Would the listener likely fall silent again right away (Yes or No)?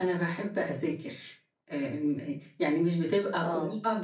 Yes